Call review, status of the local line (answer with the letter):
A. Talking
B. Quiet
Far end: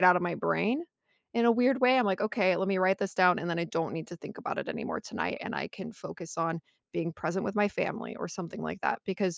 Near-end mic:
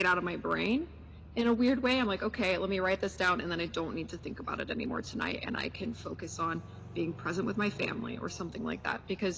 B